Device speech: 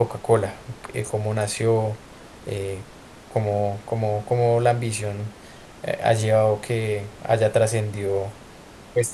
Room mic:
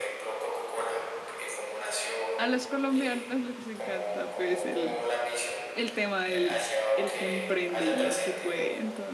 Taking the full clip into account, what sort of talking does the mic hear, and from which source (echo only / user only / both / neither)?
both